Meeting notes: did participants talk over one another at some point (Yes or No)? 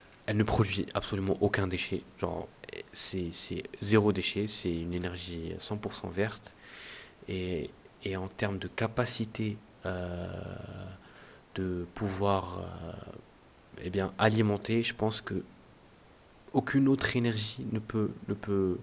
No